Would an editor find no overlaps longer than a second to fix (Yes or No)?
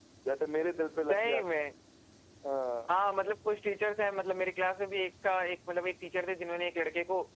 Yes